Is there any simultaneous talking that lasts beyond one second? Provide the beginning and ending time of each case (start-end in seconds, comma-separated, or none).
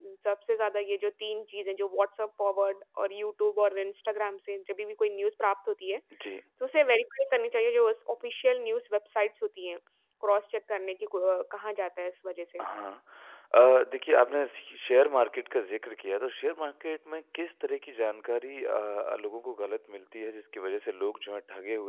none